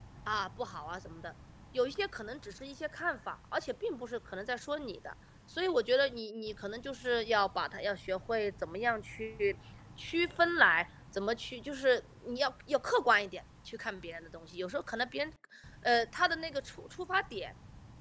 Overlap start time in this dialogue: none

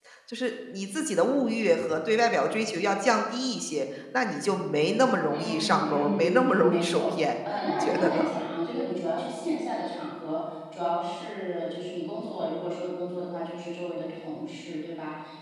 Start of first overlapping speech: 5 s

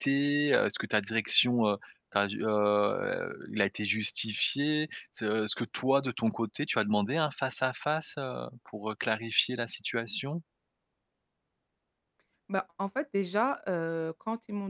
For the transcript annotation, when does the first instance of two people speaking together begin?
none

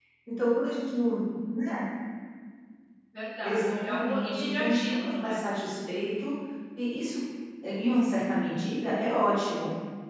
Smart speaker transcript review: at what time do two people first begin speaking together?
3 s

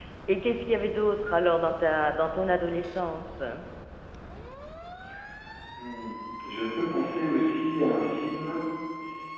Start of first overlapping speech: none

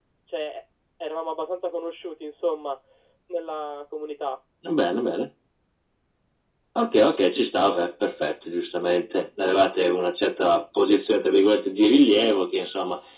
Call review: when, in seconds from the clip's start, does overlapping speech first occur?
none

